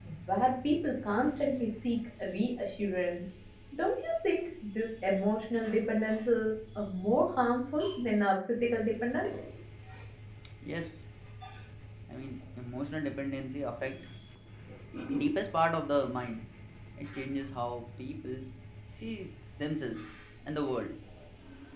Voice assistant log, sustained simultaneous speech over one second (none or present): none